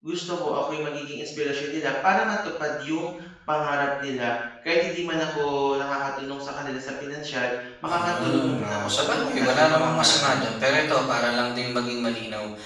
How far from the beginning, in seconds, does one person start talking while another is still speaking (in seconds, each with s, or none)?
7.9 s